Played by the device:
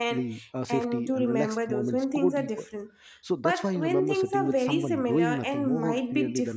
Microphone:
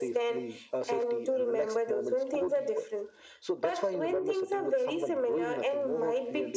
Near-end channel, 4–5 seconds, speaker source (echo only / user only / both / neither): echo only